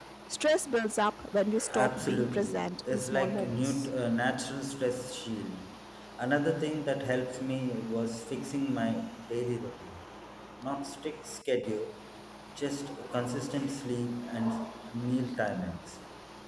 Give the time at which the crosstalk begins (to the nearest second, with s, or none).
2 s